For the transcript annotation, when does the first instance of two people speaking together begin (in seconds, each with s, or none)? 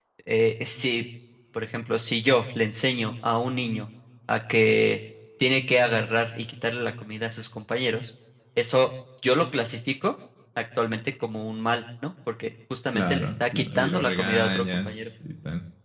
12.9 s